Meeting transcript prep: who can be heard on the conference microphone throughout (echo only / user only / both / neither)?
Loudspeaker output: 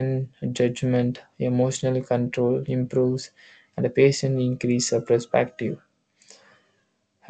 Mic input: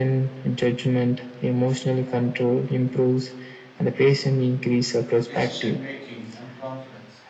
both